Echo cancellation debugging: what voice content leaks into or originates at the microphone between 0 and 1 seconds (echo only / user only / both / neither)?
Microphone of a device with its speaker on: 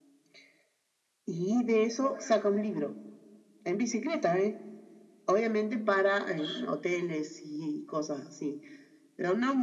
neither